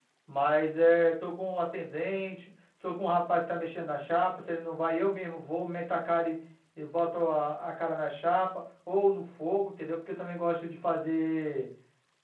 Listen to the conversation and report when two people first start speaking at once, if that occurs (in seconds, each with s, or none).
none